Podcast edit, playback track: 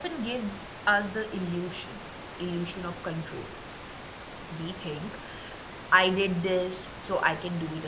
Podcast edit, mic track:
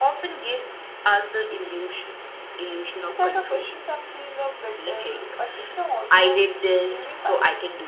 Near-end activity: present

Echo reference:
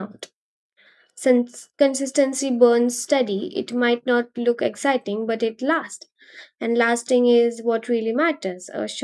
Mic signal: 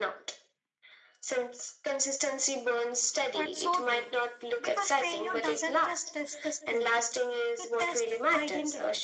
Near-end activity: present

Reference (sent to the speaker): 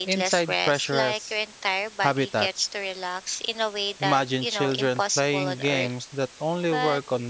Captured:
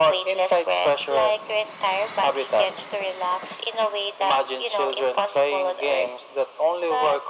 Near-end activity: none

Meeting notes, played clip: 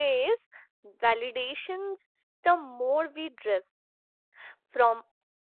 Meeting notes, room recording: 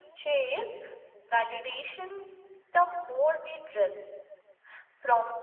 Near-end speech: none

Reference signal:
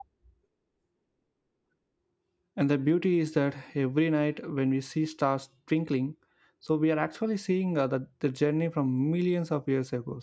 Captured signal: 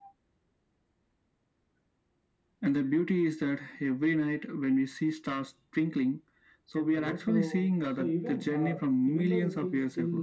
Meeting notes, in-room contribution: present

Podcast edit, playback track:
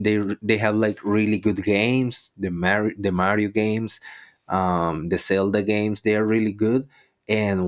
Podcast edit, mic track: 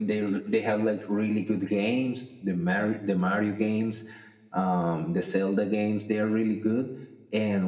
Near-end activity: none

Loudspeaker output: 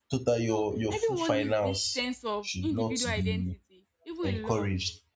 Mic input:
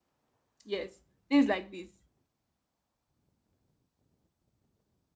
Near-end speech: present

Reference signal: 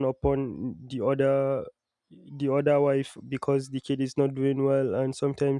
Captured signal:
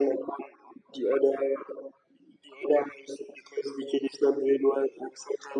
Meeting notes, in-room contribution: none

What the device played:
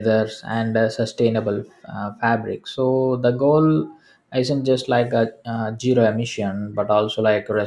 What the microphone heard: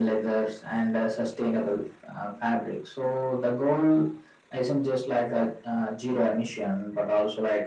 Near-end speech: none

